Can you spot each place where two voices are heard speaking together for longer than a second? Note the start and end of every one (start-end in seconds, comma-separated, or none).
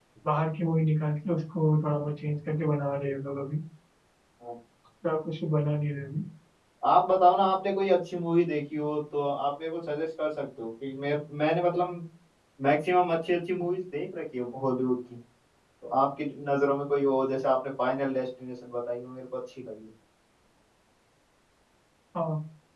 none